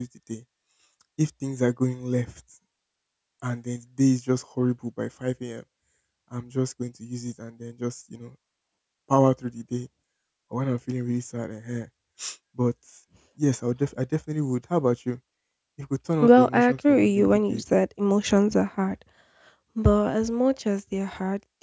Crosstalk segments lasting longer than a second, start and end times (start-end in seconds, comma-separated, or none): 16.2-17.6